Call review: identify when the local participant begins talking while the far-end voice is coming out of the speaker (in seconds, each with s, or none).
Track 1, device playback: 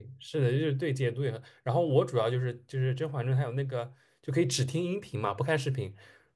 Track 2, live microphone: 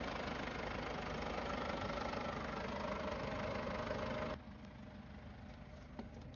none